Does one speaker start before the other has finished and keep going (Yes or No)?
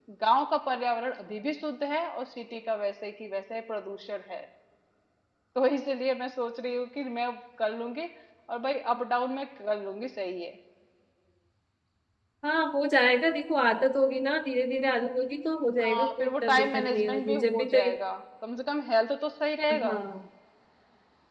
Yes